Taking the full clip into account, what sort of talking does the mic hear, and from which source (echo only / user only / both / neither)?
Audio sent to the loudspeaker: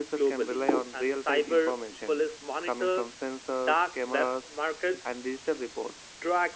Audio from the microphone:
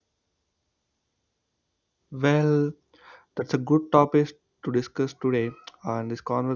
user only